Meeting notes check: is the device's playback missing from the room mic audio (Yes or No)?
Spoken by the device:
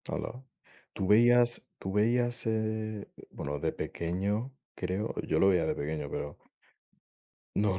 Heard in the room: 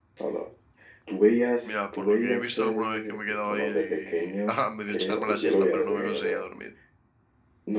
No